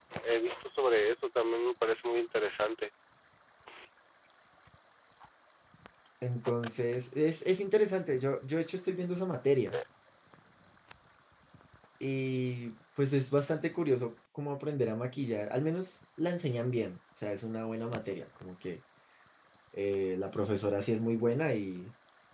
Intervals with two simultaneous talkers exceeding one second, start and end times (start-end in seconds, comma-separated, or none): none